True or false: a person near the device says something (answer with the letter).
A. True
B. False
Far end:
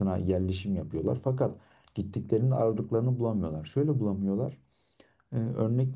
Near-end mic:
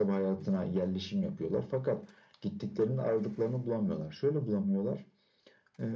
B